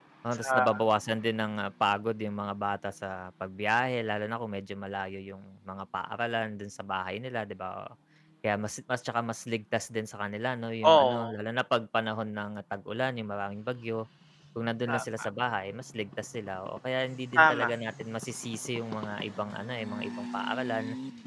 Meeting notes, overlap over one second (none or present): none